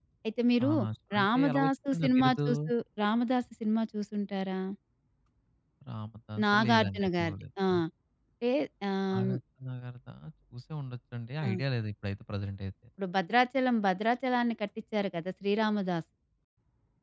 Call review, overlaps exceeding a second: present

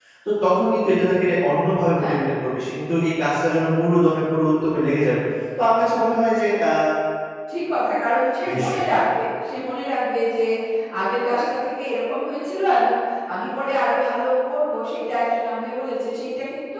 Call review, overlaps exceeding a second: none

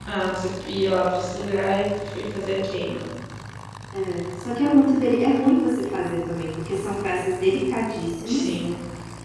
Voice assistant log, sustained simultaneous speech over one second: none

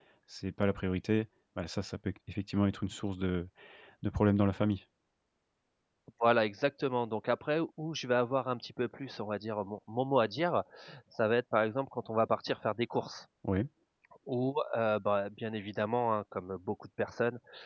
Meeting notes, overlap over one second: none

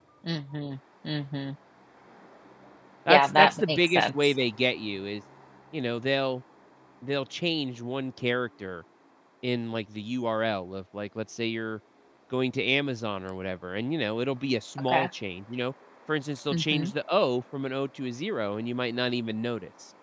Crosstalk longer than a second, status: present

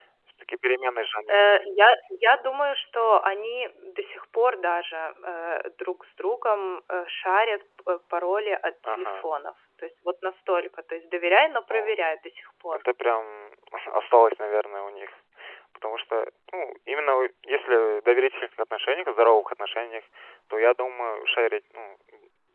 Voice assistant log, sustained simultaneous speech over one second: none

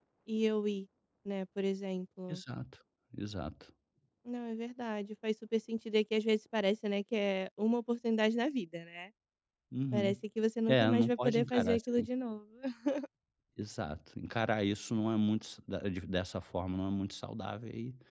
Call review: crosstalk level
present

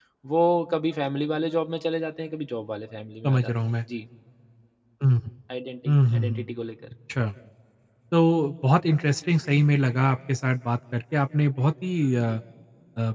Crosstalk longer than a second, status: none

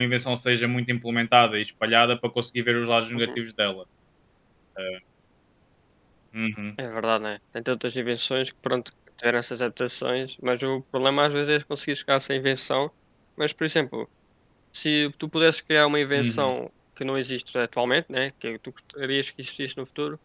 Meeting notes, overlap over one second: none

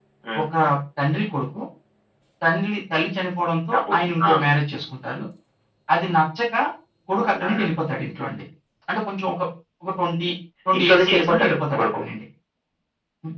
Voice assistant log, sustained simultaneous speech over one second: present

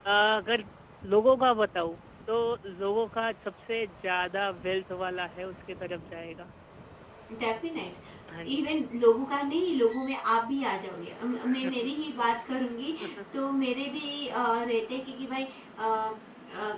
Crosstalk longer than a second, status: none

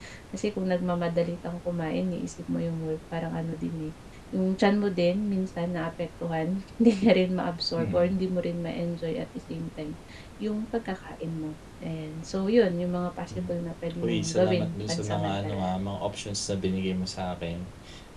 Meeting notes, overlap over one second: present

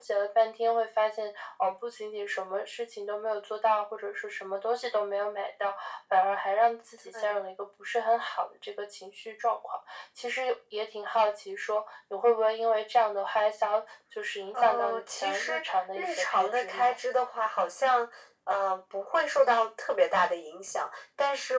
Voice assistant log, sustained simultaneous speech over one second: present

